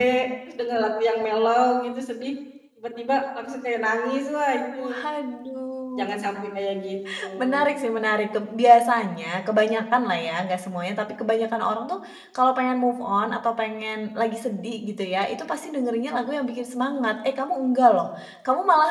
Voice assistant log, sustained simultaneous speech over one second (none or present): none